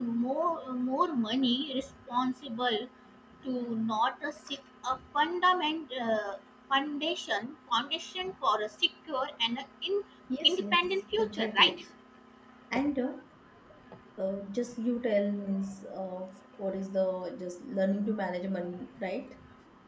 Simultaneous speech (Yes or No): Yes